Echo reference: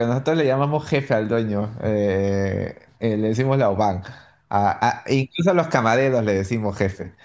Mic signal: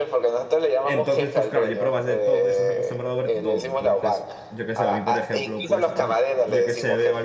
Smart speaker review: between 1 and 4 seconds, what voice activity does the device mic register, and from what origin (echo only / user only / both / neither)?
both